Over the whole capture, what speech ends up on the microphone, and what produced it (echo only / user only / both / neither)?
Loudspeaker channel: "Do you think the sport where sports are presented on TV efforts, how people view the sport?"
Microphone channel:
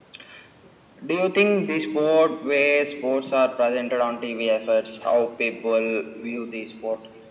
echo only